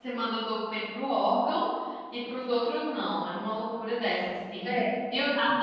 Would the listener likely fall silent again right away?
Yes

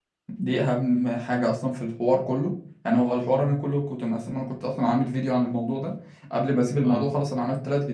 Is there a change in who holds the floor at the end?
No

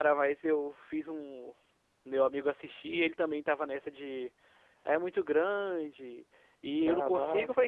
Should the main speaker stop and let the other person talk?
No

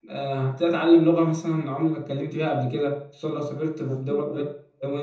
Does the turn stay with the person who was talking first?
Yes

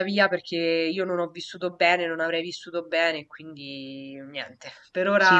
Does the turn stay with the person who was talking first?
No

